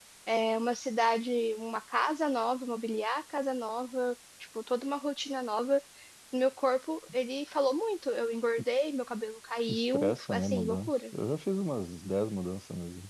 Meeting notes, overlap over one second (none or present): present